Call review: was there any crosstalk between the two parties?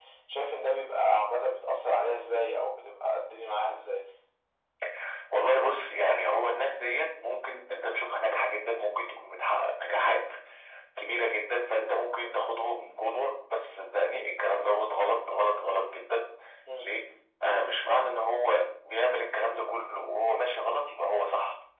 No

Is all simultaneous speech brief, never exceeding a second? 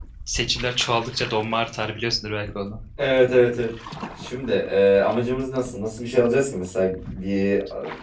Yes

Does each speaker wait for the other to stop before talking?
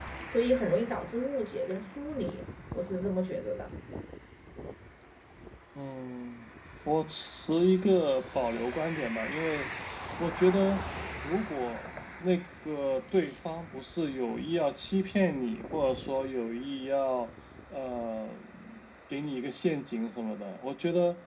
Yes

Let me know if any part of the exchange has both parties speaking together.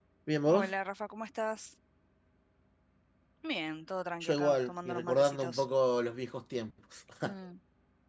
Yes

